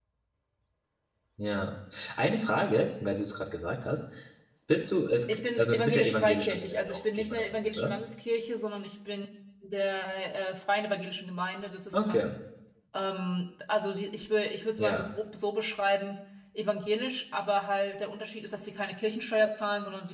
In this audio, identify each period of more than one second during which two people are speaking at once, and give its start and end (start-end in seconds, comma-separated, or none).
5.3-7.9